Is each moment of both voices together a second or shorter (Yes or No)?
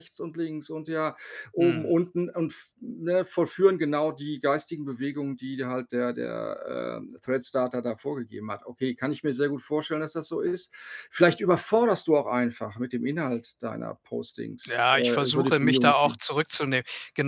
No